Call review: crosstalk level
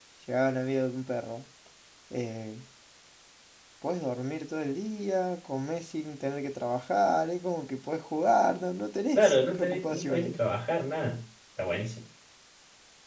present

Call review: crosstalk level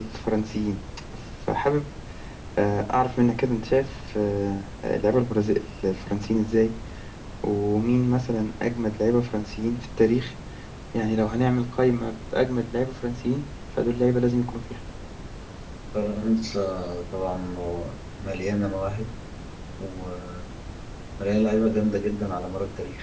none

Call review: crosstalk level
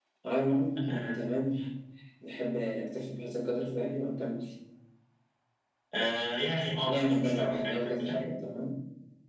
present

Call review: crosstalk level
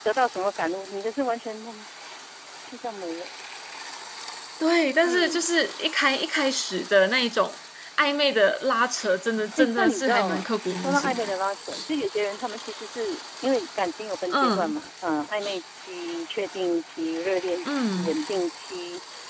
present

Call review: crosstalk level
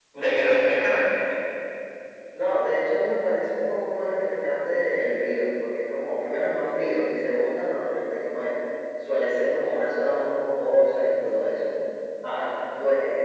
none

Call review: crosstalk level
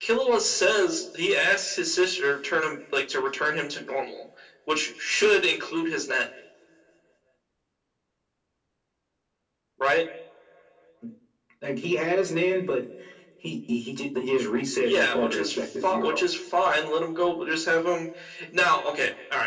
present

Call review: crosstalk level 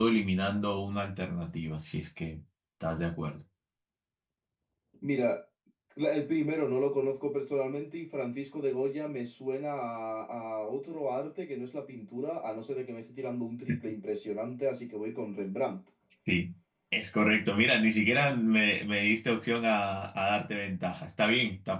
none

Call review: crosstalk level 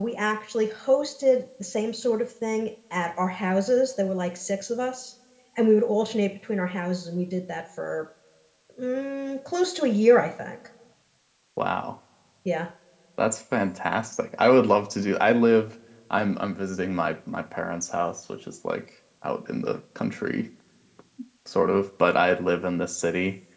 none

